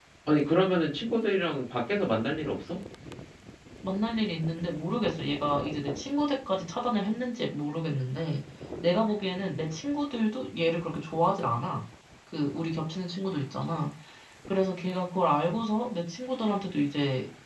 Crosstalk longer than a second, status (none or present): none